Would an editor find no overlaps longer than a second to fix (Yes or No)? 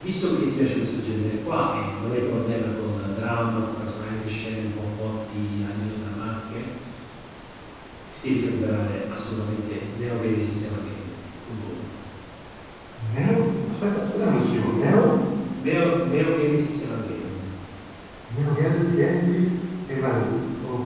Yes